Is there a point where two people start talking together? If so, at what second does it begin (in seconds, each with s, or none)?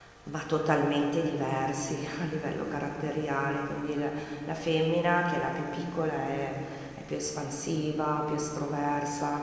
none